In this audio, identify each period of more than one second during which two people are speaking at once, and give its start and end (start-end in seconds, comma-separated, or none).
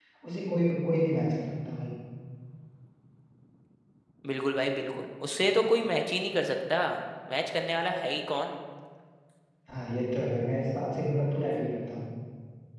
none